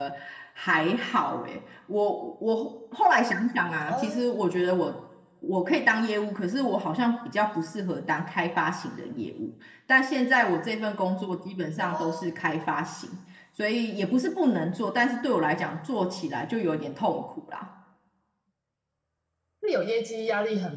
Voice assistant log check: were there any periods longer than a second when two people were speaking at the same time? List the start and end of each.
none

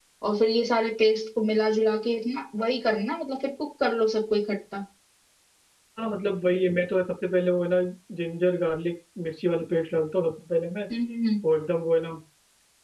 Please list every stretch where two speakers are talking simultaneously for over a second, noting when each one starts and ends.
none

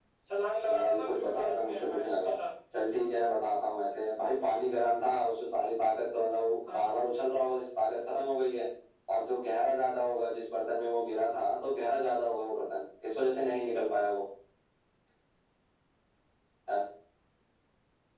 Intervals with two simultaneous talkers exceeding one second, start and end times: 0.7-2.4

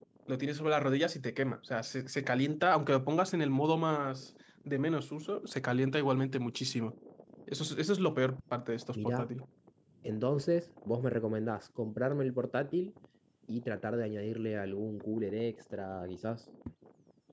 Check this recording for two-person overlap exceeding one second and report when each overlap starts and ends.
none

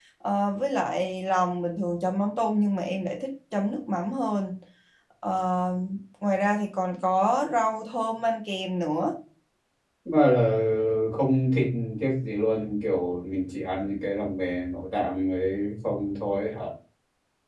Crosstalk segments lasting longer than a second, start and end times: none

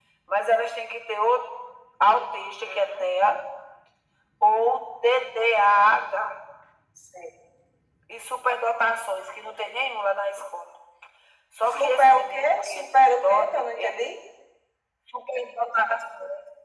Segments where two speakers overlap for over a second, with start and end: 11.7-14.0

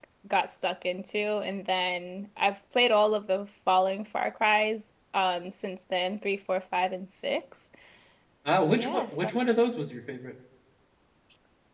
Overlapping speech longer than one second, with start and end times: none

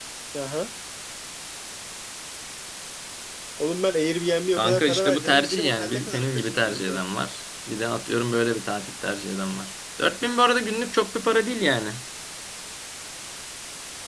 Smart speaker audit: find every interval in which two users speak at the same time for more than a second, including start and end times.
4.6-7.0

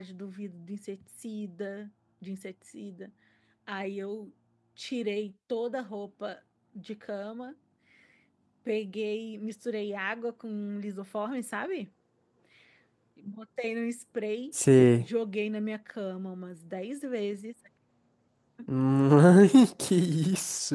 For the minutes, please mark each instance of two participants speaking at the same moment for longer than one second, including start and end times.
none

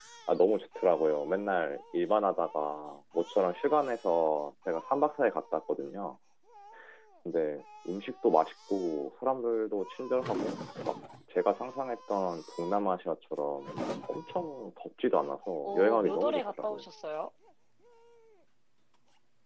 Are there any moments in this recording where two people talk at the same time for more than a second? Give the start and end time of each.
15.6-16.9

